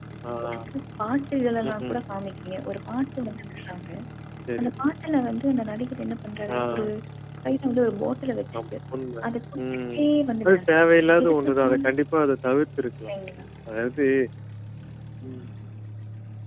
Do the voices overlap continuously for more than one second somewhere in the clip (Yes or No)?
Yes